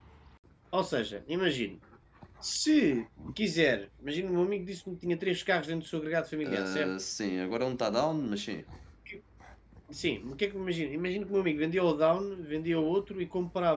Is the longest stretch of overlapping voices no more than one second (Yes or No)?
Yes